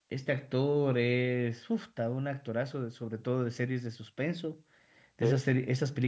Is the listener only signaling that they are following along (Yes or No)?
Yes